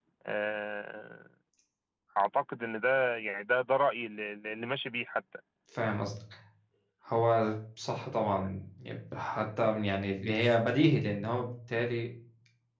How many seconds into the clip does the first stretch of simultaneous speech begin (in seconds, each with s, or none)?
none